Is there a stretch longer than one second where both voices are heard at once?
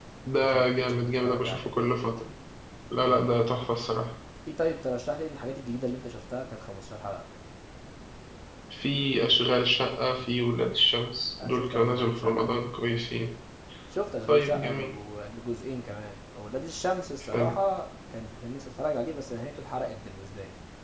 Yes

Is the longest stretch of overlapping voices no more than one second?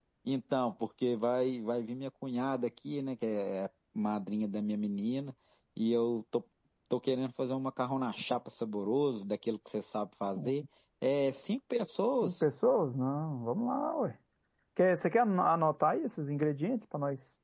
Yes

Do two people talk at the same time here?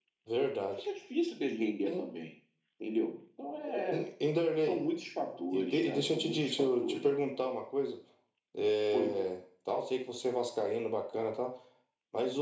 Yes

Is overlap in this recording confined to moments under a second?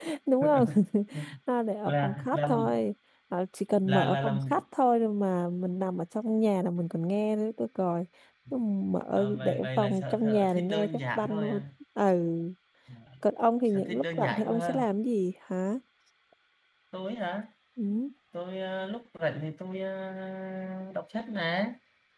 No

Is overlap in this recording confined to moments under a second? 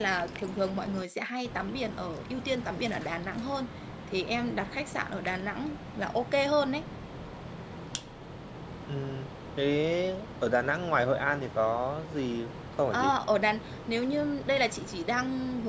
Yes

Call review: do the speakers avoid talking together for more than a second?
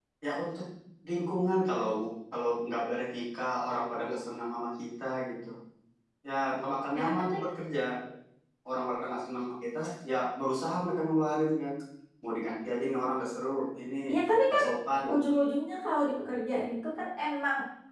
Yes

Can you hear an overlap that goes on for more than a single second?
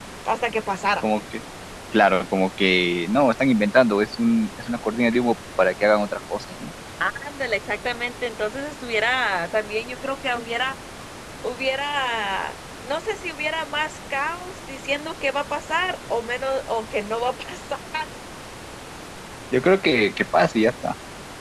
No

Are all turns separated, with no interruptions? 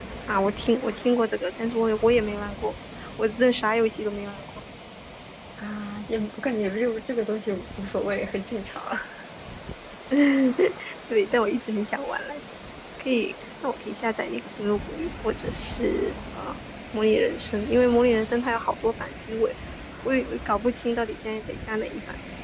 Yes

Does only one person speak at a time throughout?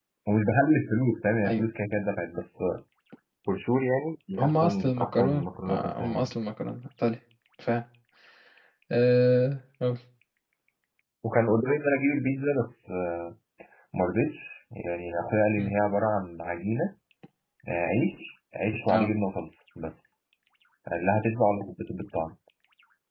No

